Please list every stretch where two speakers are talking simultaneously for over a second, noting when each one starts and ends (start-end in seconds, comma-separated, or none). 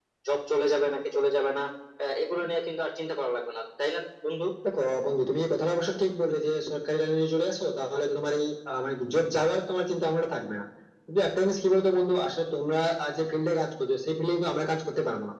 none